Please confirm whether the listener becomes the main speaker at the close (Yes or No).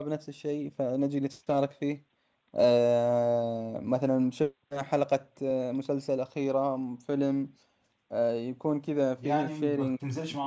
Yes